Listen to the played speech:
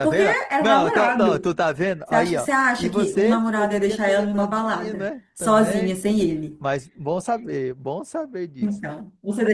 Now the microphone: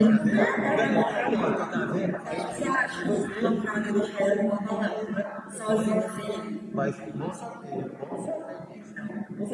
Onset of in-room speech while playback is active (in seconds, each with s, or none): none